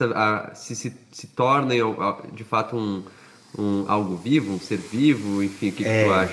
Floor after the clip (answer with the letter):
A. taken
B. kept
A